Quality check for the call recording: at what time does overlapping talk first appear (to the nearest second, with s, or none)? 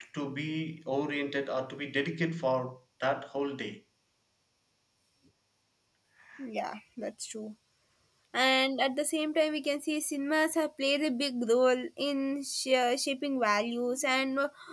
none